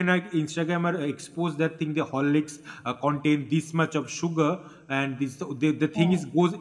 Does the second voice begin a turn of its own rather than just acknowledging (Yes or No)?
No